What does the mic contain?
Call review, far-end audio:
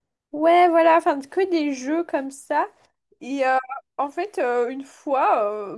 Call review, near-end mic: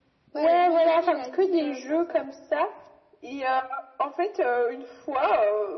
both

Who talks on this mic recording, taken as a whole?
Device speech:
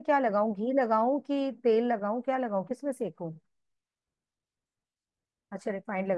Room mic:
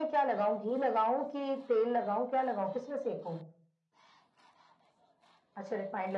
echo only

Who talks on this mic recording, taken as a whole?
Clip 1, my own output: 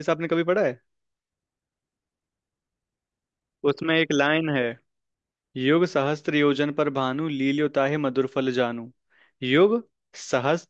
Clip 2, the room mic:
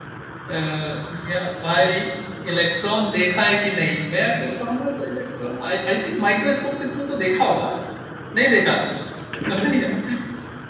user only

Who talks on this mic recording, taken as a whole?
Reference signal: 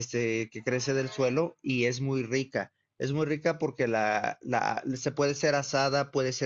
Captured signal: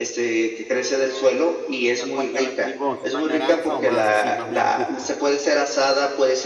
both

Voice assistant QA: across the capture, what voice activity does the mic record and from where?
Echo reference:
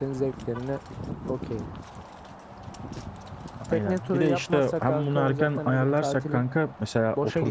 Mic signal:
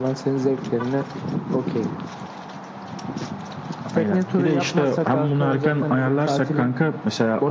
echo only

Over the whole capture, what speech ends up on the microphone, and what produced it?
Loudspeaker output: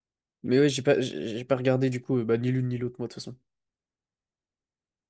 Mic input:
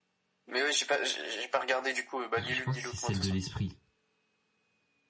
both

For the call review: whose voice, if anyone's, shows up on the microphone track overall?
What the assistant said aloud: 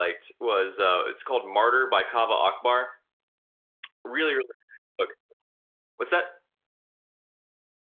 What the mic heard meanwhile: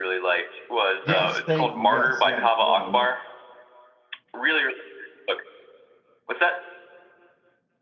both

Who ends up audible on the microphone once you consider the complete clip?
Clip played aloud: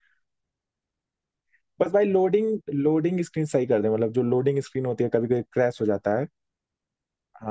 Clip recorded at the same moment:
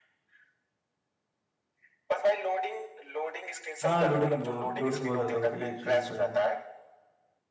both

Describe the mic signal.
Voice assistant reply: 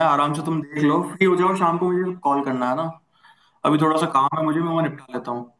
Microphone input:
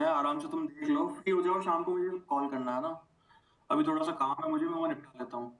echo only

